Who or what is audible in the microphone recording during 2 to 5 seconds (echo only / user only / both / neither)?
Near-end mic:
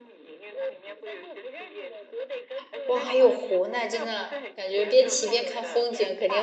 both